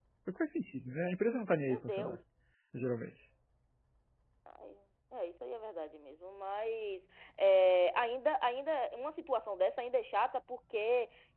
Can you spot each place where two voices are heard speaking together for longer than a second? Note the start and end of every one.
none

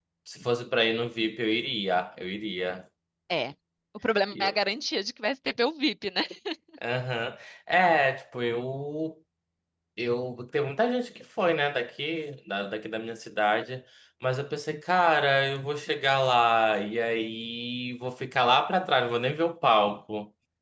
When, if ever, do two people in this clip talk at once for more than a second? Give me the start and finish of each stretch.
none

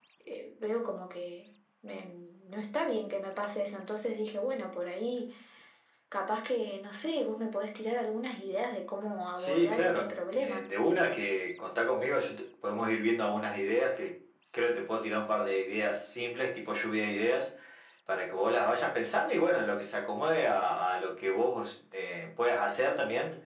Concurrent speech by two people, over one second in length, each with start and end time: 9.4-10.7

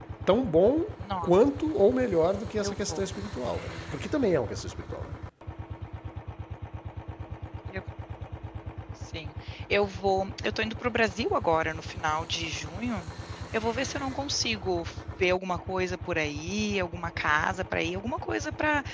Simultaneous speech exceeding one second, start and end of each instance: none

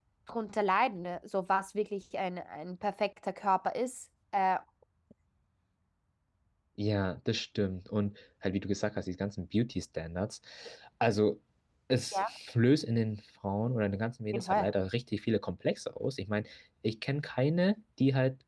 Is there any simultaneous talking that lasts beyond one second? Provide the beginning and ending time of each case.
none

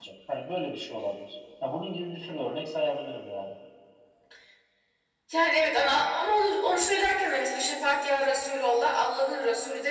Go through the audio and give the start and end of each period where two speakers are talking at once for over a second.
none

